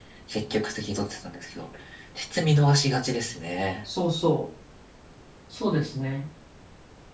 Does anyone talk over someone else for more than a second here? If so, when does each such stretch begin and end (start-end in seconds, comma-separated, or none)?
none